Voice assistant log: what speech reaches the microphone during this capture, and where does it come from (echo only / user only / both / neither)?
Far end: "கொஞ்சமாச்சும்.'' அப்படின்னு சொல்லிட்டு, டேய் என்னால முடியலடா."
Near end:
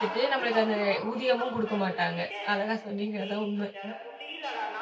both